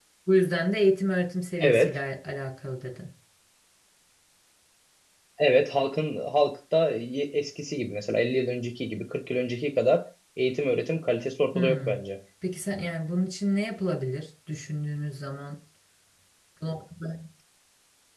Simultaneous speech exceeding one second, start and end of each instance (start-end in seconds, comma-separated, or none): none